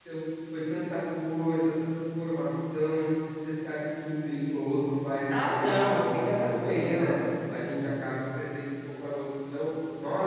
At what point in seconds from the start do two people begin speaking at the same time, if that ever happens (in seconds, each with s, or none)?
5.3 s